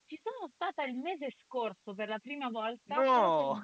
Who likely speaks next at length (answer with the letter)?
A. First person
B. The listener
A